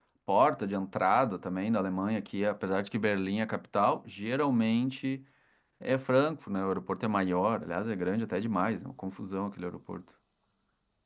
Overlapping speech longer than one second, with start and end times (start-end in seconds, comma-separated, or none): none